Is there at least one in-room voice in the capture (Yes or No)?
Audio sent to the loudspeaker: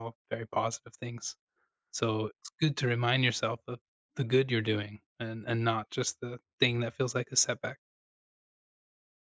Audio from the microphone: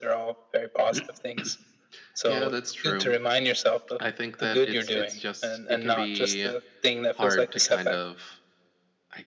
Yes